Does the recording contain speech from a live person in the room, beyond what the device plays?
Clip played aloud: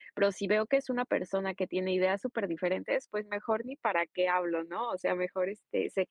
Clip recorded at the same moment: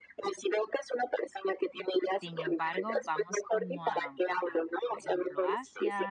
Yes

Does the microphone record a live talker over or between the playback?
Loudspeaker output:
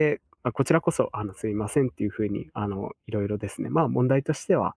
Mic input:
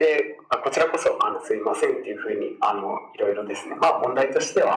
No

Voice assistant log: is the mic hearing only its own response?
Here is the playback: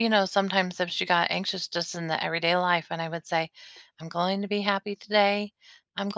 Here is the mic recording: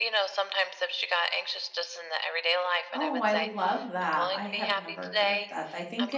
No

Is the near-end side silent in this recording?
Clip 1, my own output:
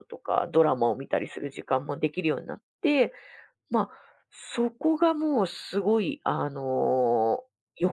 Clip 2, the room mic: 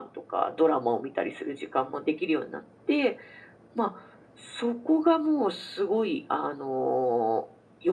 Yes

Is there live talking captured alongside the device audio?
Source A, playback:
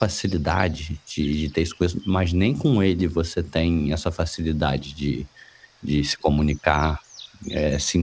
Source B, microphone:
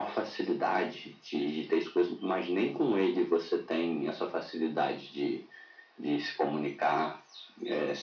No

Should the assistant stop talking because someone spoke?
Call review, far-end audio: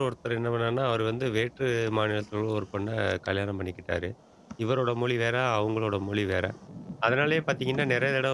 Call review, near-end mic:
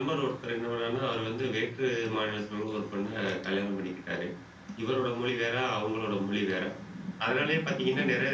No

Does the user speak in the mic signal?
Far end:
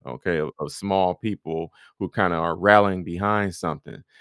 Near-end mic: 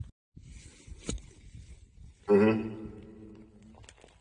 Yes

